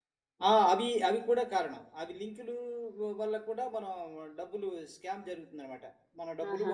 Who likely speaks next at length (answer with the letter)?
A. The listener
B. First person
B